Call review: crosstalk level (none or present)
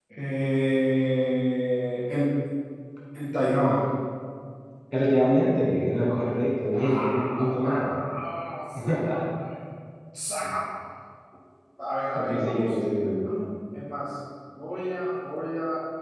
present